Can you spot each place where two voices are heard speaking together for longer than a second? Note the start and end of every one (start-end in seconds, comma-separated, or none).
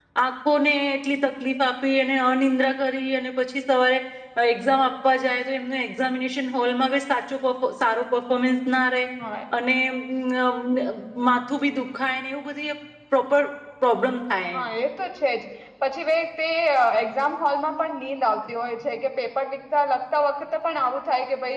none